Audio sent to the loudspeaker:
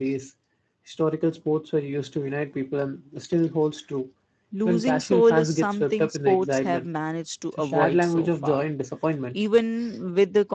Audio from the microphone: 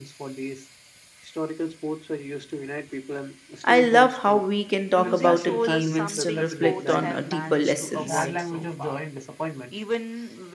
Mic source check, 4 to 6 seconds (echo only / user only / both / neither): both